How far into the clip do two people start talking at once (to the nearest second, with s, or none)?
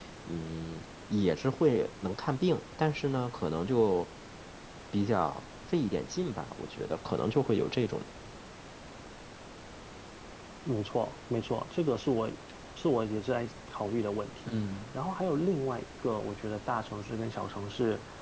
none